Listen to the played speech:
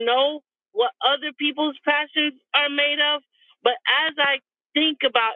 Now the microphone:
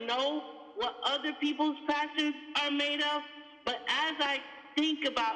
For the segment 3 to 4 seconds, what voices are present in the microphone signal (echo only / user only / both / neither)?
echo only